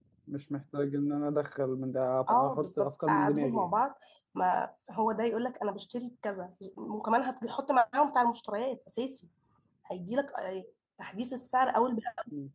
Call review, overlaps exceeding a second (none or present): present